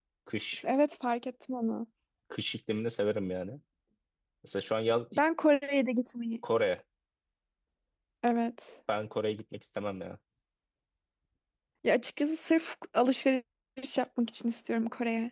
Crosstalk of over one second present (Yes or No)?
No